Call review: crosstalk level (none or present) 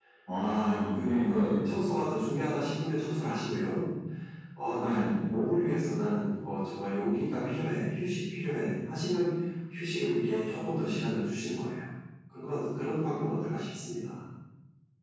present